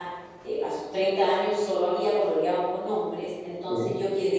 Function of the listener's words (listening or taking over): listening